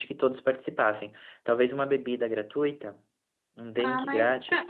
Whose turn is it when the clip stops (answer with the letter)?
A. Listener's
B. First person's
A